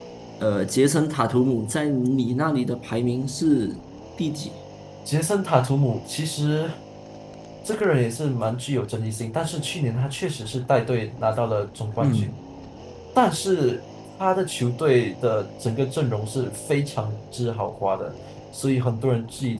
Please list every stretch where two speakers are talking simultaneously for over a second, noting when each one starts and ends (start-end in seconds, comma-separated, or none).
none